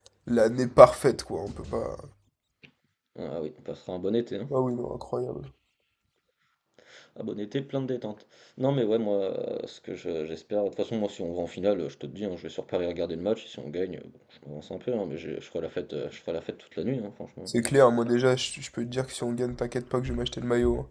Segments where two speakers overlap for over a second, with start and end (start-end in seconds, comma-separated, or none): none